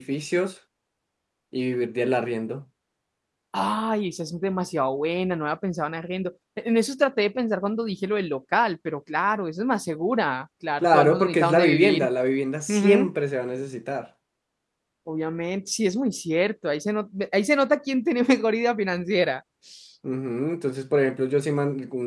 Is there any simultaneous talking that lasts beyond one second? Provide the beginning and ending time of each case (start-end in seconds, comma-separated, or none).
10.8-12.1